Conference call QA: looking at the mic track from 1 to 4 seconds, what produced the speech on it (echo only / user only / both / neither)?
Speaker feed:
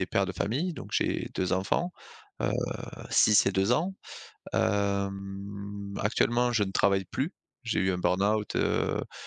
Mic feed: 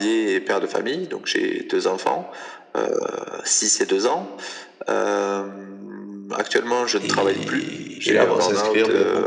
echo only